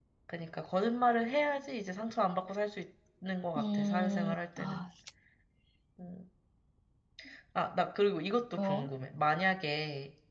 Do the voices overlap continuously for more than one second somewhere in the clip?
Yes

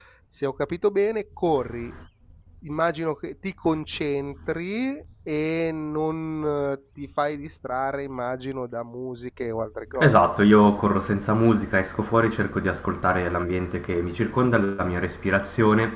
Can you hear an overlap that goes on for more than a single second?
No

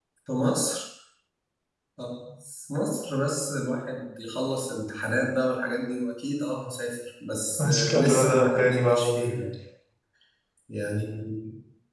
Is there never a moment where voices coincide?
No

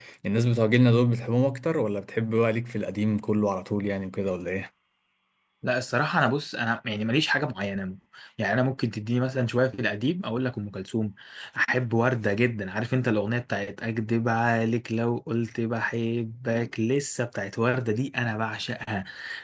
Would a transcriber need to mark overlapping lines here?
No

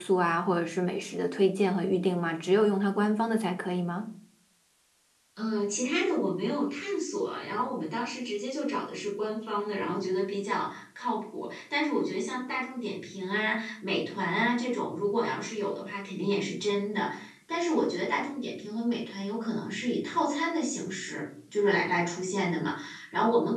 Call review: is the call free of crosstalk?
Yes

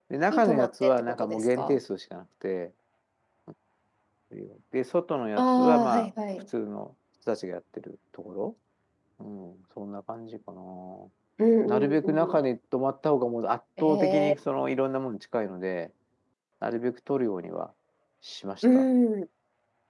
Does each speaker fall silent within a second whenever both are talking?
No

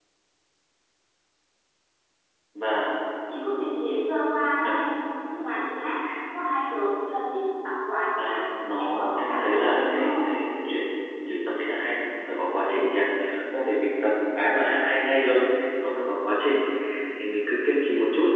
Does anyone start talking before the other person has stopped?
Yes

